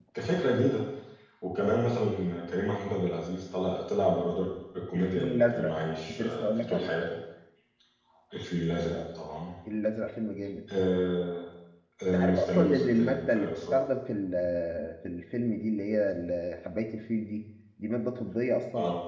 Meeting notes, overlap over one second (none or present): present